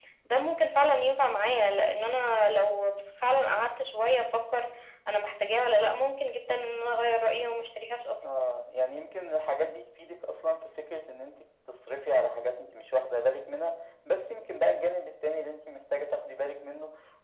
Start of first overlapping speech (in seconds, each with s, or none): none